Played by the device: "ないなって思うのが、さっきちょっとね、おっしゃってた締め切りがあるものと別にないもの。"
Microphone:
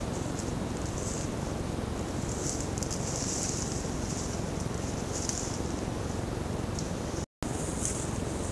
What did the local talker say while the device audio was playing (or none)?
none